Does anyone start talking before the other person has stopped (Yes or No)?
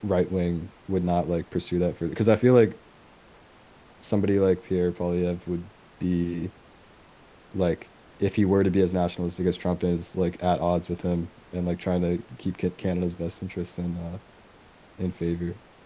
No